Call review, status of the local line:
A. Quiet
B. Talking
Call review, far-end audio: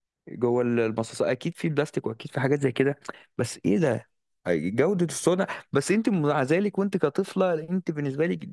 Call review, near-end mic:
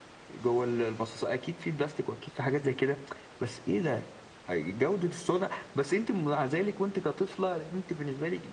A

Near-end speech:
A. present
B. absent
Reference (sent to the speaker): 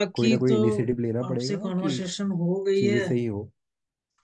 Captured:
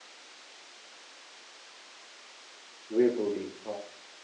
A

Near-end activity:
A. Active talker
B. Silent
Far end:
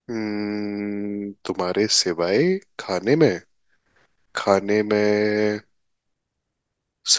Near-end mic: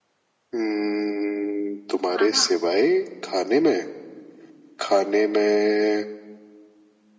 A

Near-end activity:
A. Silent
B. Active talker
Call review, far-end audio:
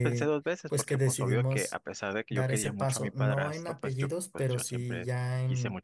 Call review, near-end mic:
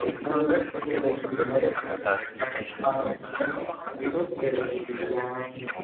A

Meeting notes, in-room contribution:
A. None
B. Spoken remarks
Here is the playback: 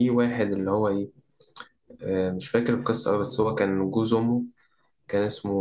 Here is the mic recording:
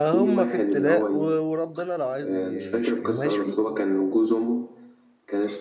B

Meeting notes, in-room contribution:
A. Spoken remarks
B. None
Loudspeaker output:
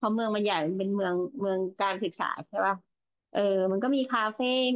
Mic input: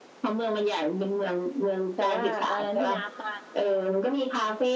A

